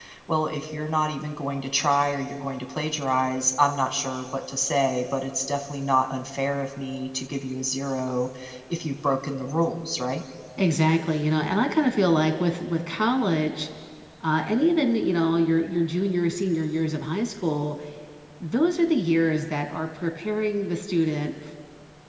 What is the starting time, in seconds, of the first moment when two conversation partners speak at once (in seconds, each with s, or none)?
none